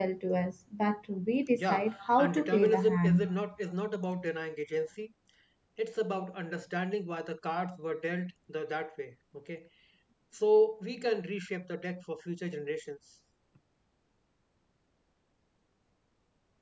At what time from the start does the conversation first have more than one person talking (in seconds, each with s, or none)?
1.5 s